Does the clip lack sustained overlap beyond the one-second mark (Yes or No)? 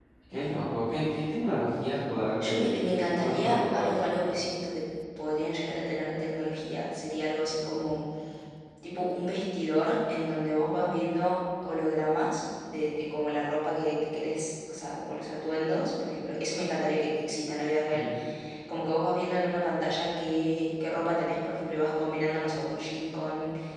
No